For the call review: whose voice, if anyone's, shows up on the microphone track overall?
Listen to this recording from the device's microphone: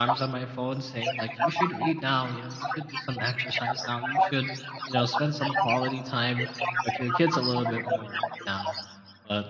both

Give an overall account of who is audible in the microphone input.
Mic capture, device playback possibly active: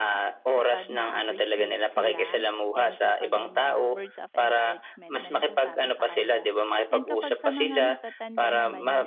both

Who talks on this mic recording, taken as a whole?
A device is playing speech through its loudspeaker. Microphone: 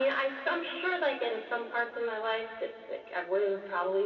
echo only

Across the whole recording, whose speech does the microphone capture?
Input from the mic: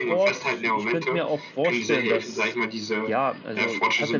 both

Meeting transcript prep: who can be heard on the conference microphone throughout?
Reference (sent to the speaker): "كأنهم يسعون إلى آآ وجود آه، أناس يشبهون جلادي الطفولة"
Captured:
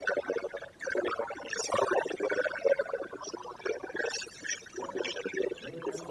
both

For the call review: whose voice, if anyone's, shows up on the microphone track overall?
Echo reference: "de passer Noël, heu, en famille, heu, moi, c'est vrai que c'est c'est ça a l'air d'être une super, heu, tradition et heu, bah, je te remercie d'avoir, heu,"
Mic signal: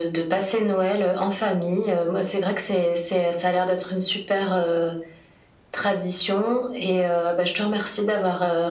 echo only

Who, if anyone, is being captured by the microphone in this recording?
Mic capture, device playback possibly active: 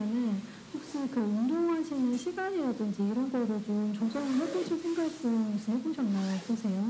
echo only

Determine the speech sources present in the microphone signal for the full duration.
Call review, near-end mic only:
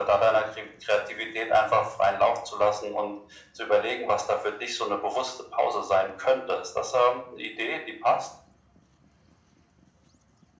echo only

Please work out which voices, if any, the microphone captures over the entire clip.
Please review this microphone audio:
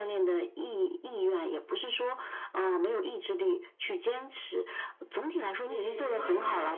both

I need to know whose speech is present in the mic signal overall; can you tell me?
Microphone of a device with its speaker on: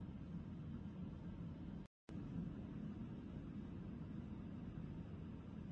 neither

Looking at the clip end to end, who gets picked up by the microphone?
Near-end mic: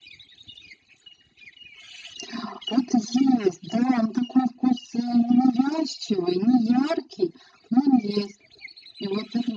echo only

